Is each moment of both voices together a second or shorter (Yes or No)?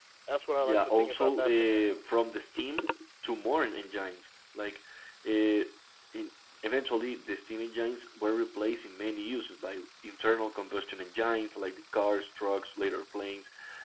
No